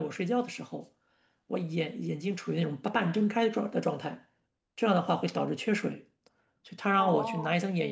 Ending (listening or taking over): listening